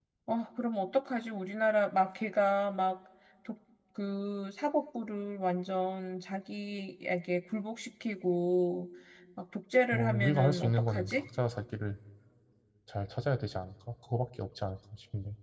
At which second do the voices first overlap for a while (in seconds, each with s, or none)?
9.9 s